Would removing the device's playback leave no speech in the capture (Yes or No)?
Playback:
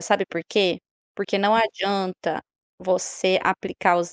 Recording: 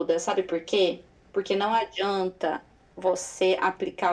Yes